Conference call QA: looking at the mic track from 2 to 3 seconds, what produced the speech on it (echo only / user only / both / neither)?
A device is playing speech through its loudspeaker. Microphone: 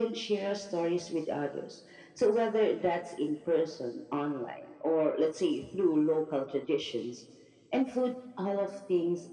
echo only